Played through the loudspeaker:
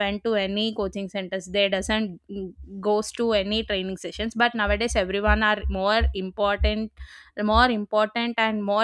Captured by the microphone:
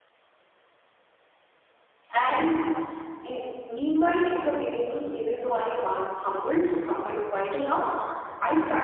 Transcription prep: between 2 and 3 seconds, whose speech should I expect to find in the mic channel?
user only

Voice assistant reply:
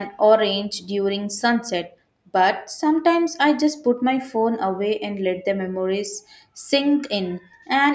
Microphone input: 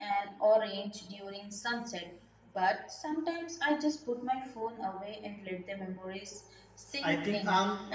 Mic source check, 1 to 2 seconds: echo only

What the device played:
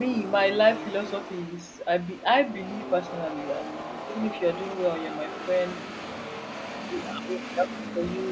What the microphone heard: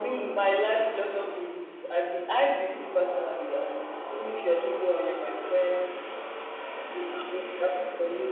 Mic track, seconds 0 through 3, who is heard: echo only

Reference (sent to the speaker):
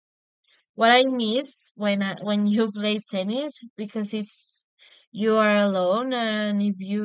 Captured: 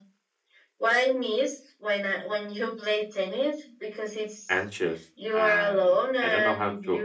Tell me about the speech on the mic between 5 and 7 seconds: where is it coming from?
both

